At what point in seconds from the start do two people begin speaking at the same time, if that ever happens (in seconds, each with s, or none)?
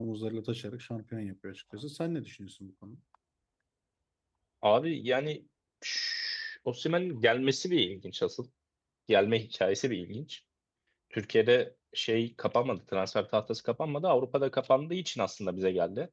none